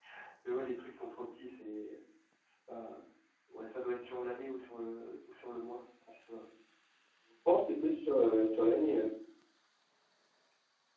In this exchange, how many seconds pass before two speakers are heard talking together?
none

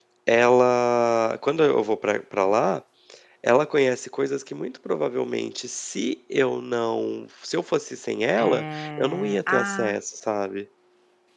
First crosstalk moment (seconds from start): 8.4 s

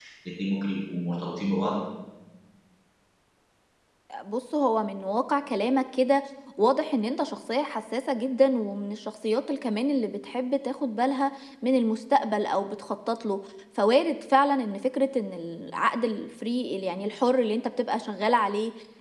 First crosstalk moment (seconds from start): none

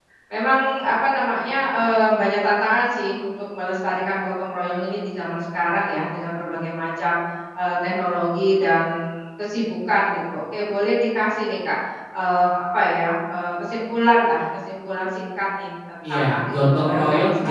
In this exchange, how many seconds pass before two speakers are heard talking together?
16.0 s

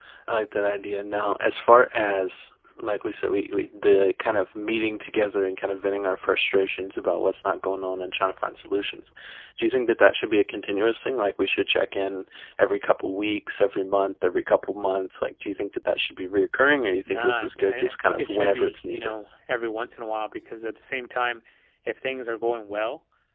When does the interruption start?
17.1 s

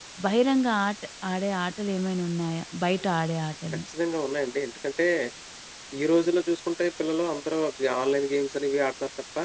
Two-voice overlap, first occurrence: none

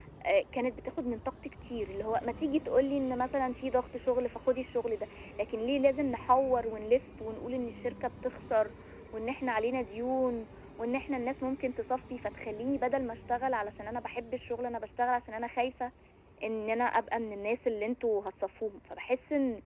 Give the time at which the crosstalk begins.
none

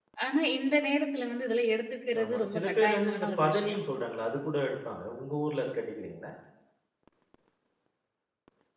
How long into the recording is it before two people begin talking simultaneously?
2.1 s

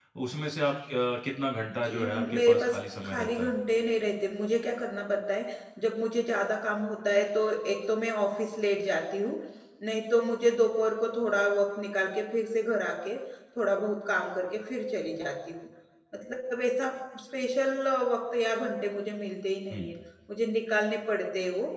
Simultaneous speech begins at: 1.9 s

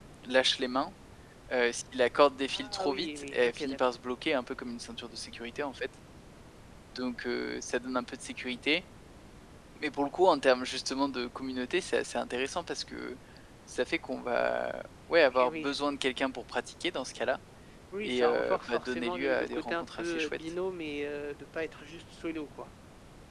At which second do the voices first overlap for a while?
2.5 s

